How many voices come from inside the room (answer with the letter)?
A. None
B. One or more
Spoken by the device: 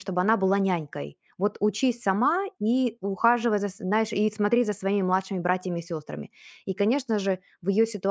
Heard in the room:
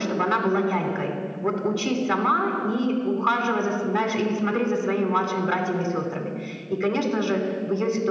A